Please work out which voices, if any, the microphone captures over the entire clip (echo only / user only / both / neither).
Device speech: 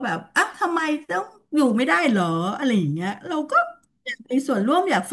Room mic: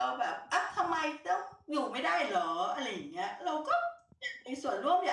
echo only